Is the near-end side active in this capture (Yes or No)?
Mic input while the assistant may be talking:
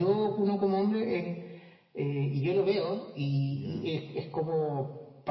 Yes